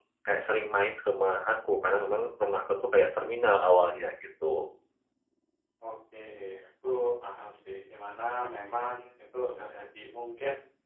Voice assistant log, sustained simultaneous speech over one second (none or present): none